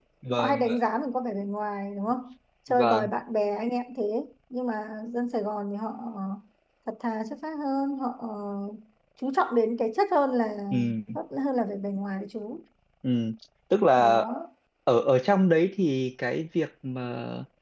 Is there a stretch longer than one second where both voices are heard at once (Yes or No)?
No